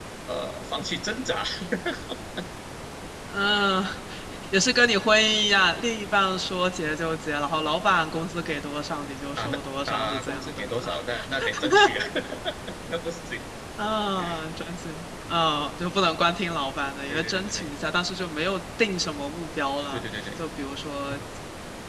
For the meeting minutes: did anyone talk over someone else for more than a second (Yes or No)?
Yes